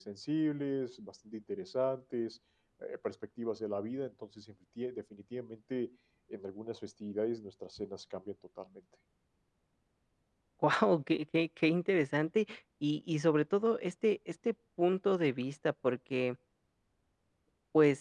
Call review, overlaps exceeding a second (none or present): none